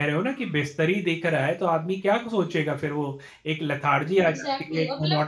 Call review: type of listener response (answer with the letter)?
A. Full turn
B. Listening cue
A